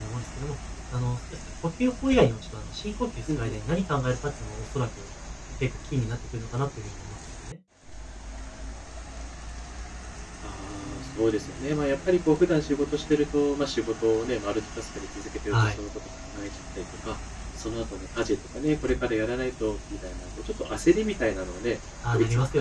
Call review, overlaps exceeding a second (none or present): none